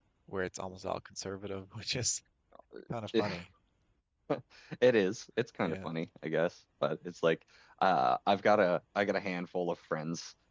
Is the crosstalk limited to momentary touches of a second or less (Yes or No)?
Yes